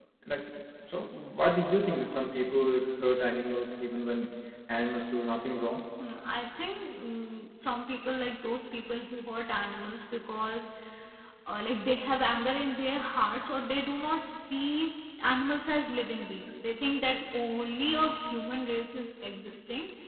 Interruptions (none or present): none